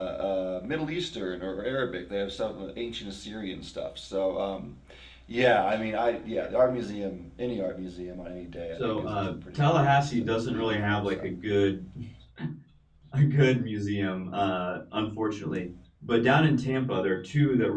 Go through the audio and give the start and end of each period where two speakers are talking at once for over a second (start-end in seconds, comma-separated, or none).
8.7-11.2